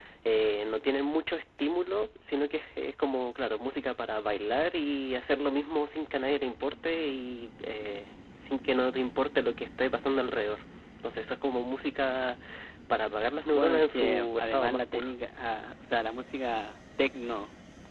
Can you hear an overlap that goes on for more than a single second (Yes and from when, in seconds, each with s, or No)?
Yes, from 13.5 s